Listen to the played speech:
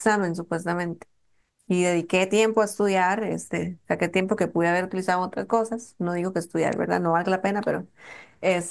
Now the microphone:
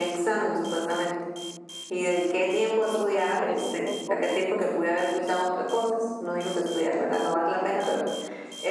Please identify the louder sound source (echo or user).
echo